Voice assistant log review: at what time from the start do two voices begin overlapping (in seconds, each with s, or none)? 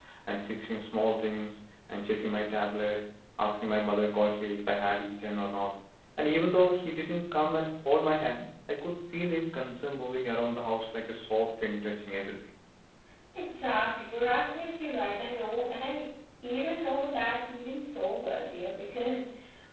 none